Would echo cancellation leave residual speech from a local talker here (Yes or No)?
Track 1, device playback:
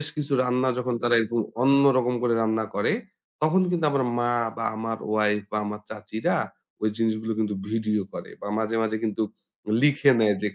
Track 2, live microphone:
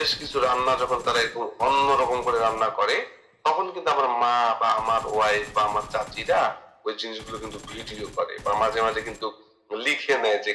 No